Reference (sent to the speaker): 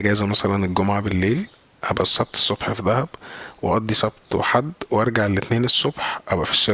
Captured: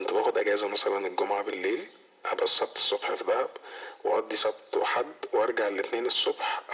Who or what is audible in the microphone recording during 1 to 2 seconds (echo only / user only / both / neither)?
echo only